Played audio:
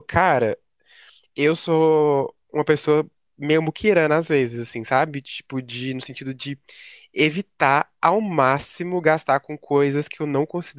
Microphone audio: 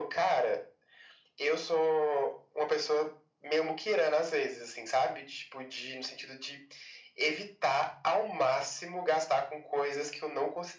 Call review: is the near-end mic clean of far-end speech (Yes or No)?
No